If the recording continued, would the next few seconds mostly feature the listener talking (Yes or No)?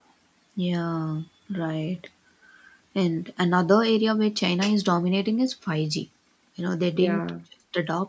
No